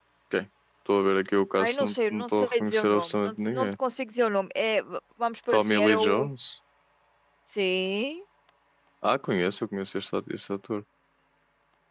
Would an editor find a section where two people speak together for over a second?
Yes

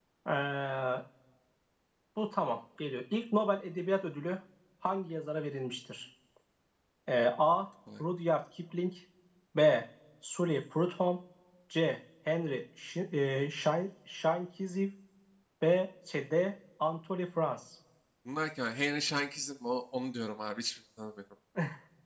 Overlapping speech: No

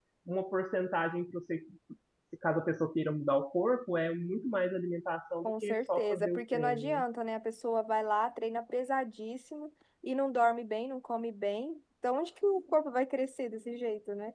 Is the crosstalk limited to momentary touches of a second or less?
No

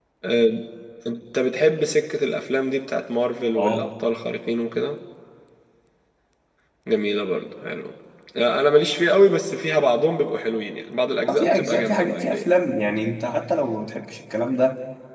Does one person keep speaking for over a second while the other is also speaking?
Yes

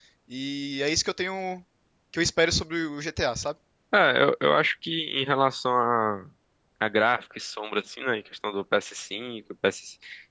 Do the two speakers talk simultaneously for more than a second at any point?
No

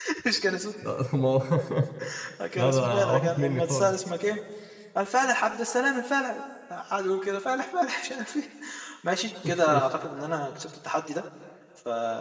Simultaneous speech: Yes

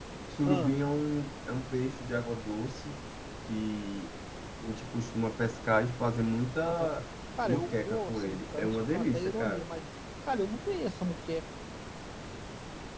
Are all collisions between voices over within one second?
No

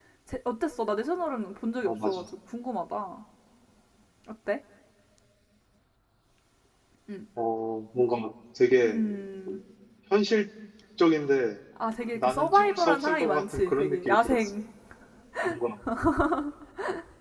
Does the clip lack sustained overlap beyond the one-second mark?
No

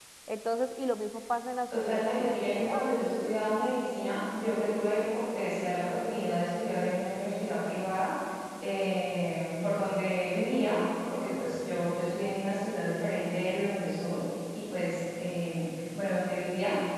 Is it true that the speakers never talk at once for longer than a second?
No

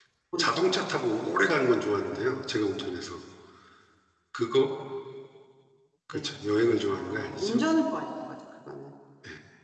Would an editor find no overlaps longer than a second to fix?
No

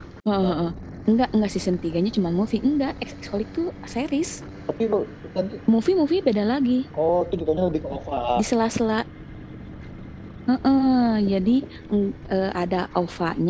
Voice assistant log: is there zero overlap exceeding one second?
Yes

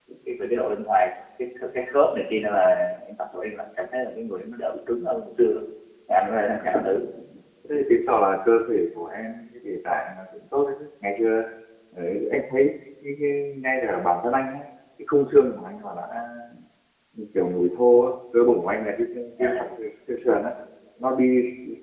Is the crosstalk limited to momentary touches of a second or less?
Yes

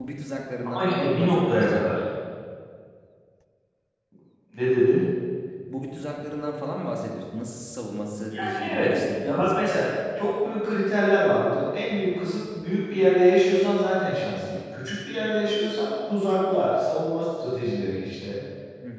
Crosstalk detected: Yes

